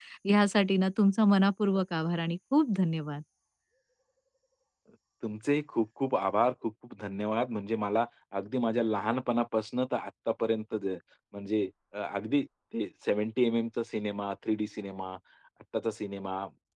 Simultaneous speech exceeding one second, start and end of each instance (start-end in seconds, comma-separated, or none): none